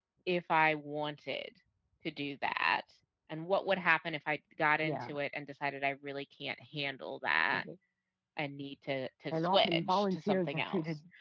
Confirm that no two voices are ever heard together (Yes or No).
No